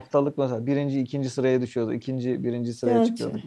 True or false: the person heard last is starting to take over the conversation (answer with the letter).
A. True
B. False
B